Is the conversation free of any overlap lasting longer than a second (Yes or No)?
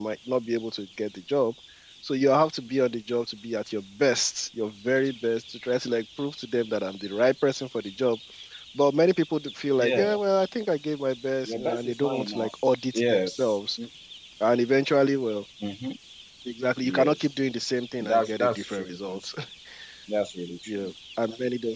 No